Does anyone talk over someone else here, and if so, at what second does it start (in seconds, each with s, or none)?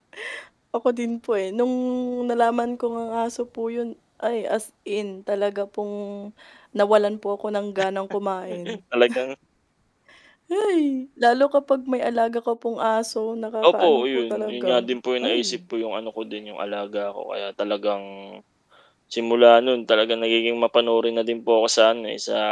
13.6 s